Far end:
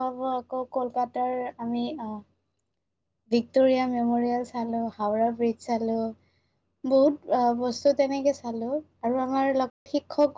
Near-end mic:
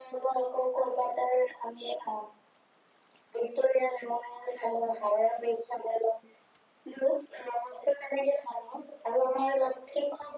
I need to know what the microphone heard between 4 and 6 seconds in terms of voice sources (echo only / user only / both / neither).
echo only